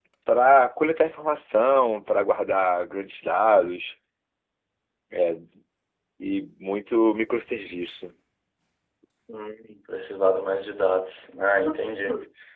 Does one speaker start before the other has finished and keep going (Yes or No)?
No